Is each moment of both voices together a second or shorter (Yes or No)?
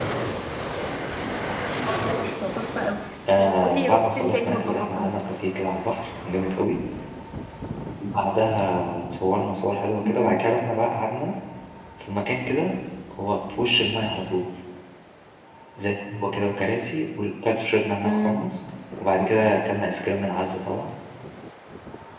No